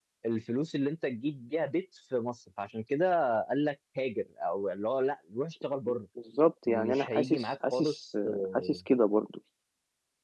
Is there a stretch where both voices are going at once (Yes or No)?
Yes